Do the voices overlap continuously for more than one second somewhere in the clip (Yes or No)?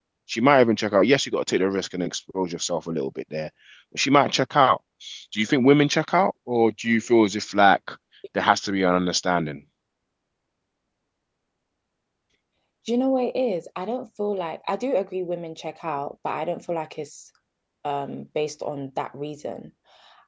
No